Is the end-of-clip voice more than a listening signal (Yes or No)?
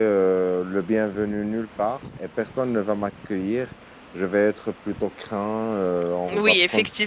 Yes